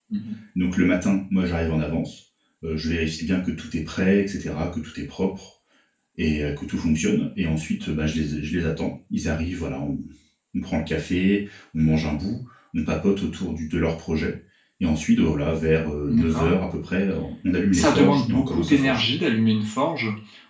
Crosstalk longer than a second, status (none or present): present